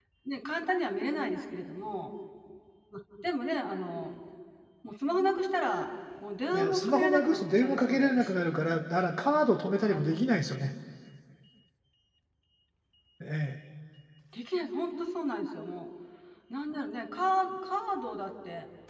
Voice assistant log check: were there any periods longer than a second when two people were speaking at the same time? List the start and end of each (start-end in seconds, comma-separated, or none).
6.5-8.4